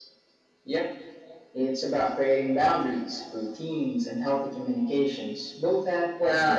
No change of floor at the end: No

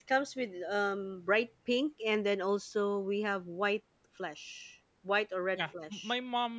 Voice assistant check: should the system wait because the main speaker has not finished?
No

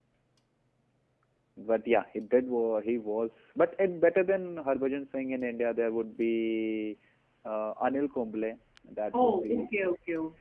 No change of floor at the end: No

